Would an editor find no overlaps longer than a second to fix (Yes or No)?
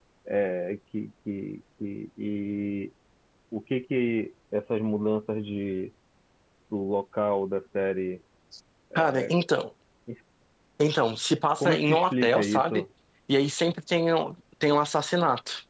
No